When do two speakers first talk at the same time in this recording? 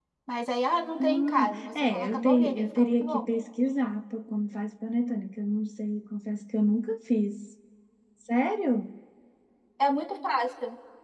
1 s

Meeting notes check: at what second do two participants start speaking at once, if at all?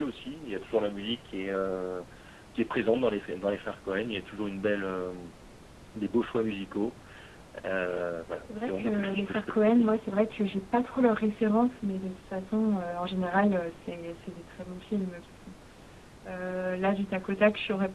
9 s

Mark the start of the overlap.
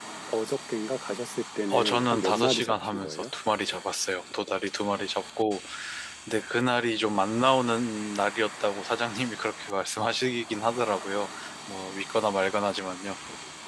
2 s

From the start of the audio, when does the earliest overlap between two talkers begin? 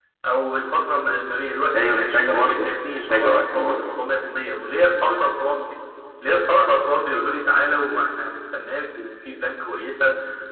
2 s

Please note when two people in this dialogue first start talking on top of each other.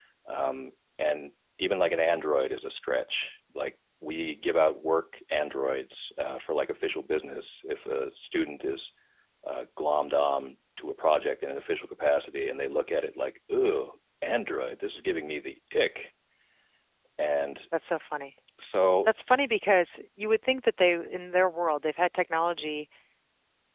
none

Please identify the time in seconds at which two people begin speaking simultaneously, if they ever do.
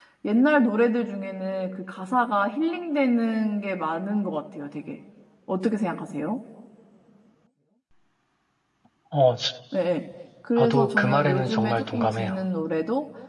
11 s

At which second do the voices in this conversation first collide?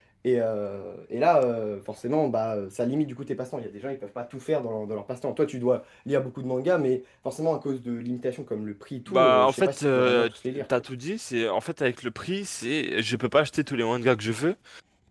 9 s

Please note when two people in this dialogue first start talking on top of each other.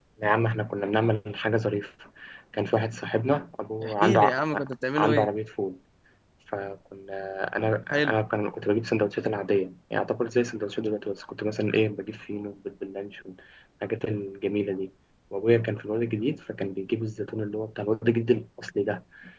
4 s

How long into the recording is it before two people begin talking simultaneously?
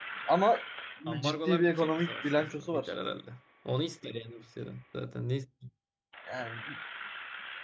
1 s

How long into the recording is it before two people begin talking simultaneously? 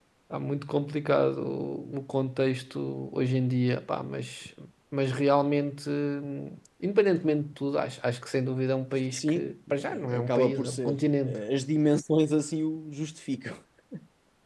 9 s

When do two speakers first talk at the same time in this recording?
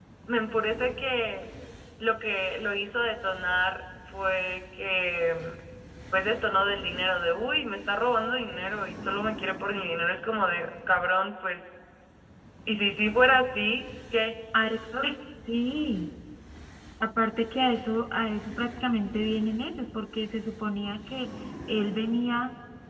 none

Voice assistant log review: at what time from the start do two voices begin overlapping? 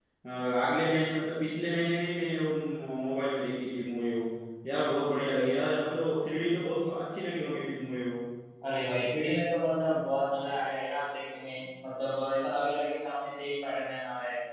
none

